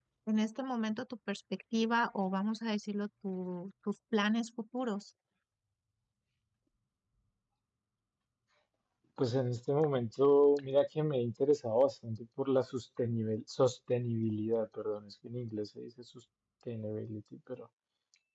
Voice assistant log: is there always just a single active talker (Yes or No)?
Yes